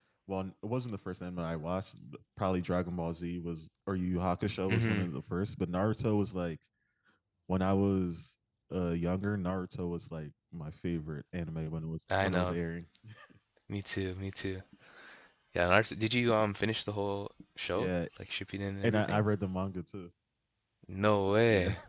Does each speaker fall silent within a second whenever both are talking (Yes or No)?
Yes